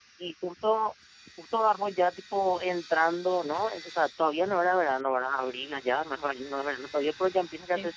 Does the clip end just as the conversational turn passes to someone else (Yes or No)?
No